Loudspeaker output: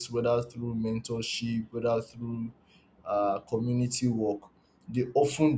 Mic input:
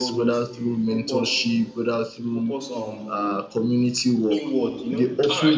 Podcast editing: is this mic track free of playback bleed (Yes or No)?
No